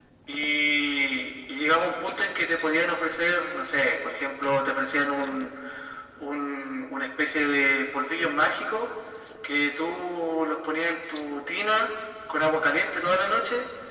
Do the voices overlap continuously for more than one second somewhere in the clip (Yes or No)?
No